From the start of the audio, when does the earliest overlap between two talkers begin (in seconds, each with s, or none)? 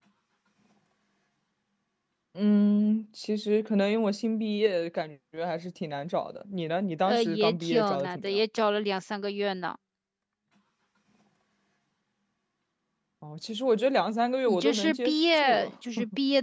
7.0 s